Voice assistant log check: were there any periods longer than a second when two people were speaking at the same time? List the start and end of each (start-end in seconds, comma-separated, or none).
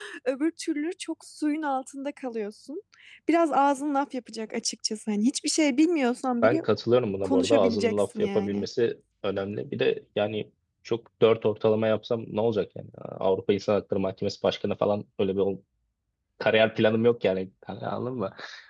7.2-8.7